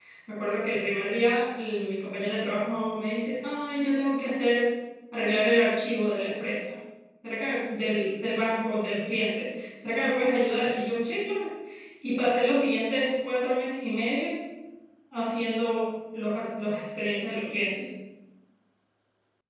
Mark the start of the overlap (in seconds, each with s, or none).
none